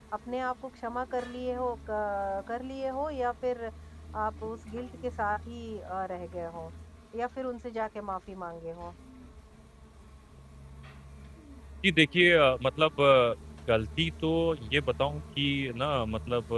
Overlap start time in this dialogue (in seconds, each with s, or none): none